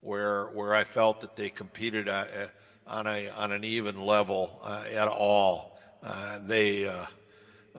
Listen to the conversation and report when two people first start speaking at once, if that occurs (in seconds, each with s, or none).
none